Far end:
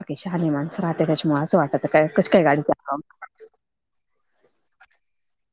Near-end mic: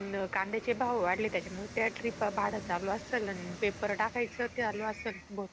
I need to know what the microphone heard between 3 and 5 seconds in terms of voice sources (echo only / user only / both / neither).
user only